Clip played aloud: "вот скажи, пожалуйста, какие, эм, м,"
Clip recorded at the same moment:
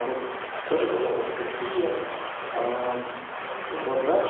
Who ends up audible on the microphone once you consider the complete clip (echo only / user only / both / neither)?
echo only